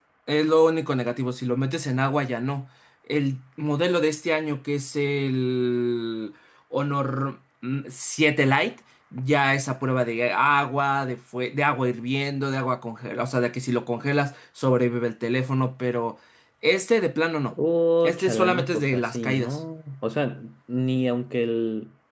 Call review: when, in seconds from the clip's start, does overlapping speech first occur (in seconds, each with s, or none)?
18.0 s